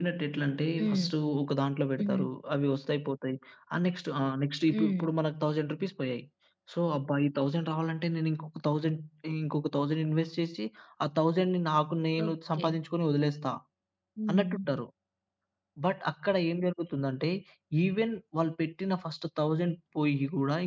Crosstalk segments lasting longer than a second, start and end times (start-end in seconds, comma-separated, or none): none